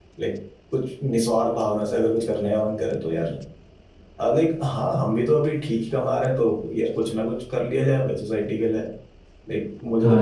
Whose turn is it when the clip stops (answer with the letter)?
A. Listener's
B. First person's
A